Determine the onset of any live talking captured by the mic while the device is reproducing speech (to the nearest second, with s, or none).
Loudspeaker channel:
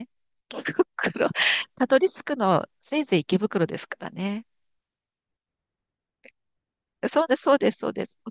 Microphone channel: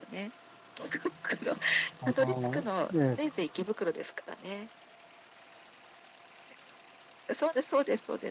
2 s